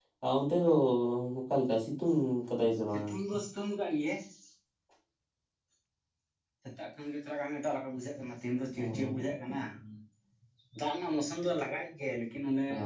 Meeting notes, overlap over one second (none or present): none